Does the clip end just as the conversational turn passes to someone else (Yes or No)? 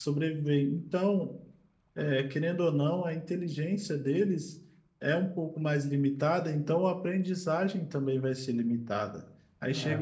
No